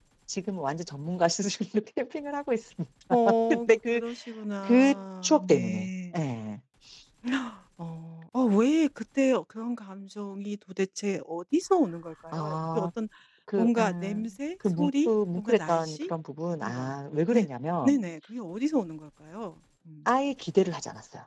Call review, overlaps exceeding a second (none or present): present